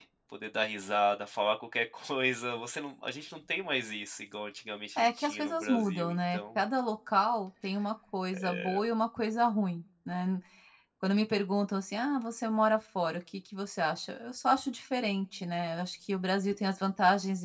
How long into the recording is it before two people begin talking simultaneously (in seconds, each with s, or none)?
5.0 s